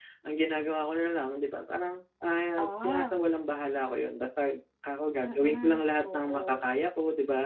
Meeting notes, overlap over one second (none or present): present